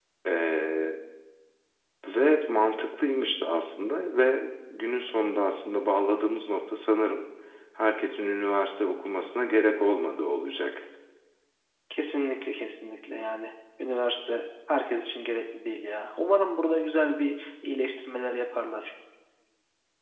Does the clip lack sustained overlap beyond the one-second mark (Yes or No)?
Yes